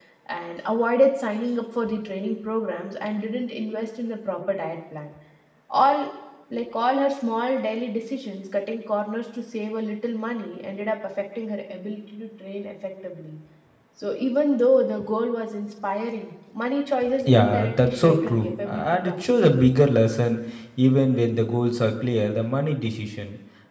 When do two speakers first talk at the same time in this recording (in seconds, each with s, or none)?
17.2 s